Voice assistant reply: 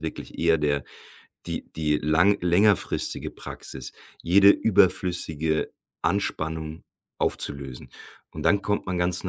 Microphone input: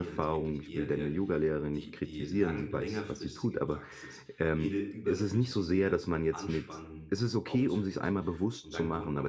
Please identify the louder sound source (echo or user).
user